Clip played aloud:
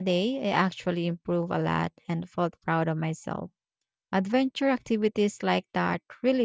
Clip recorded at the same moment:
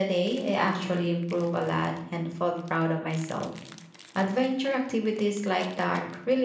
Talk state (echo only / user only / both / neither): echo only